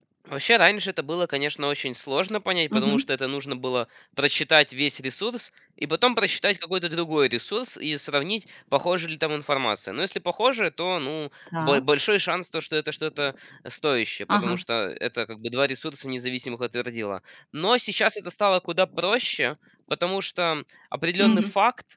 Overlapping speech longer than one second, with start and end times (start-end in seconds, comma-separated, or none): none